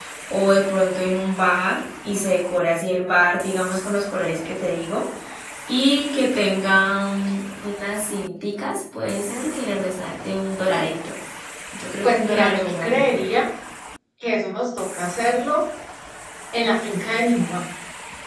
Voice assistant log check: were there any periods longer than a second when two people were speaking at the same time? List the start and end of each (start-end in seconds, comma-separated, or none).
12.0-13.3